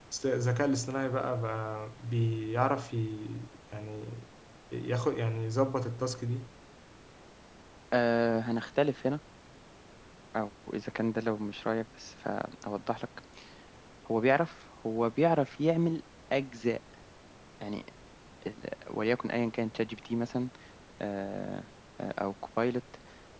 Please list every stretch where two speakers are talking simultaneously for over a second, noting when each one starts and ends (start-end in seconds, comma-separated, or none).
none